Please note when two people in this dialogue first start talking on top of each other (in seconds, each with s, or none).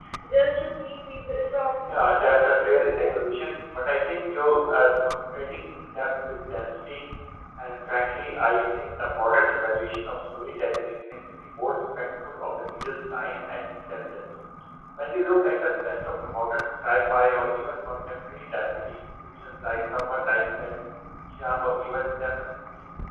1.9 s